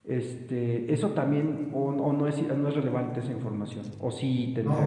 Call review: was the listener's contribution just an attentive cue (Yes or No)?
No